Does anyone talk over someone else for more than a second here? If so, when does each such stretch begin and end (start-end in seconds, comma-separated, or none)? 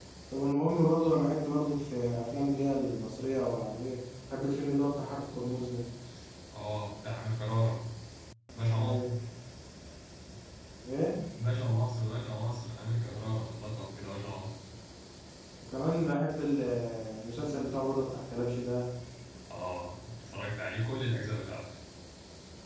none